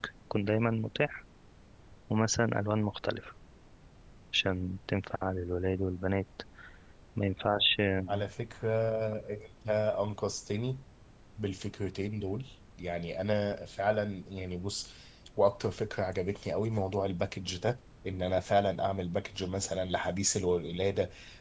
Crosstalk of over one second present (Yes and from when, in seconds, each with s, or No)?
No